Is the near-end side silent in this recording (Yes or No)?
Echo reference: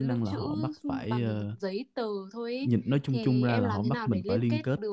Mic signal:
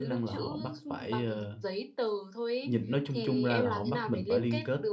Yes